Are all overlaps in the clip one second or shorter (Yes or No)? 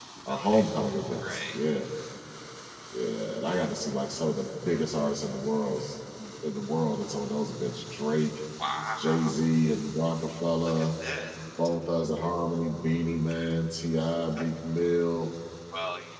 Yes